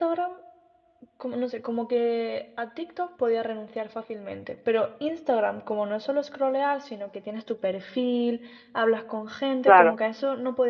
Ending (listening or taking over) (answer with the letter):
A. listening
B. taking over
A